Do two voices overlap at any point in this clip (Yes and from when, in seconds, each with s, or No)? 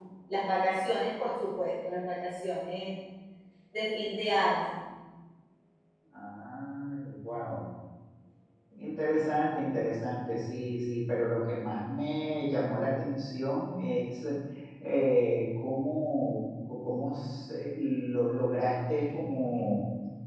No